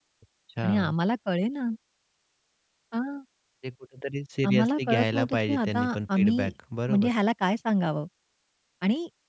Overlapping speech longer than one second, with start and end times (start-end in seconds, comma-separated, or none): 4.5-6.5